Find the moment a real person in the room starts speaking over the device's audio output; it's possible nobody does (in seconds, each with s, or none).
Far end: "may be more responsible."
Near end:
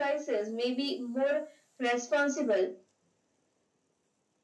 none